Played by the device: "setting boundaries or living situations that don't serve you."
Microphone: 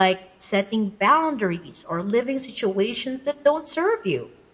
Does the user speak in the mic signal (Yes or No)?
No